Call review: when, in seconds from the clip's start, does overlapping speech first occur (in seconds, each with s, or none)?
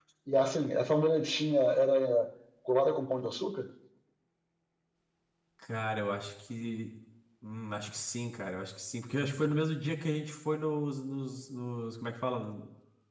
none